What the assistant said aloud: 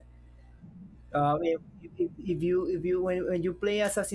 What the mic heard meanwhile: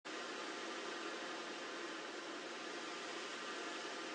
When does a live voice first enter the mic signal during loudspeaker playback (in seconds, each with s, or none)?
none